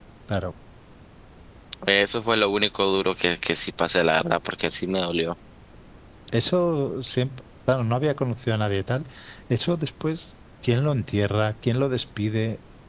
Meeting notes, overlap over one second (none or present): none